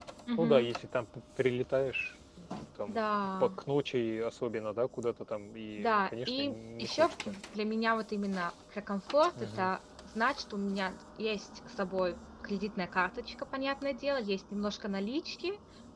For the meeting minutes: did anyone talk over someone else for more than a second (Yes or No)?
Yes